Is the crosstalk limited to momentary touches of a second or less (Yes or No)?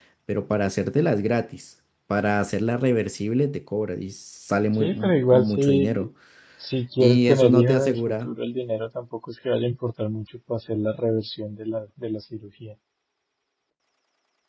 No